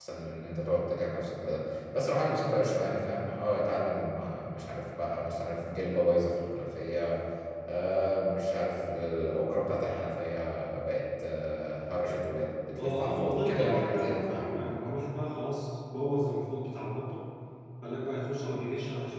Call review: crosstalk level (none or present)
present